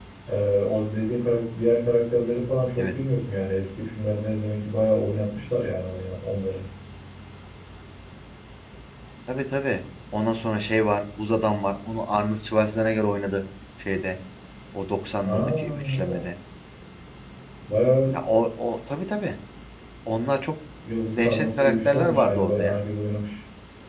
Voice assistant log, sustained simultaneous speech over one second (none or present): present